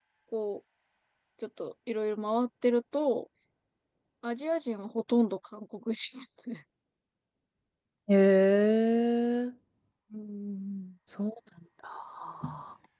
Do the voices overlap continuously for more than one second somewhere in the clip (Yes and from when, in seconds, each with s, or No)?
No